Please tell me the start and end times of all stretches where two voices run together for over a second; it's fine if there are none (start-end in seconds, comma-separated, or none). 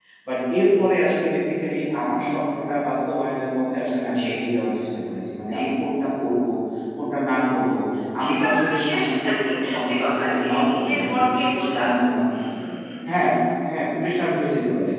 8.2-11.8